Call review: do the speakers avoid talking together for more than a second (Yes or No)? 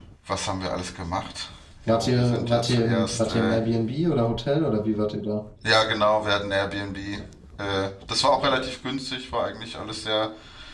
No